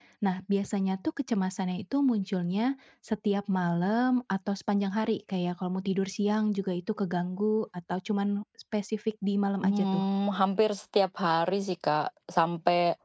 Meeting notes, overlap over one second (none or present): none